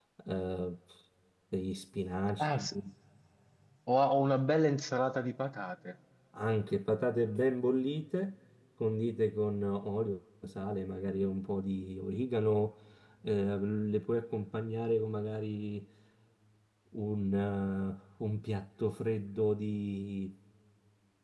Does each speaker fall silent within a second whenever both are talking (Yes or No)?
Yes